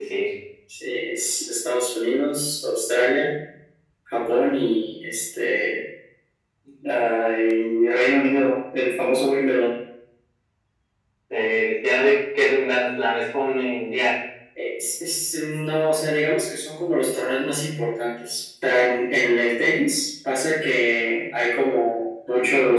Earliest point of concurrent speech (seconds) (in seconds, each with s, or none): none